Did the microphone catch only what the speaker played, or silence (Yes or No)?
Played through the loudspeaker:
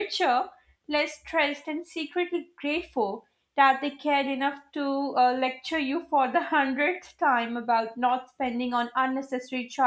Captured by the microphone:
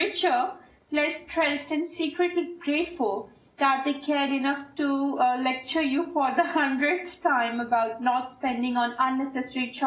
Yes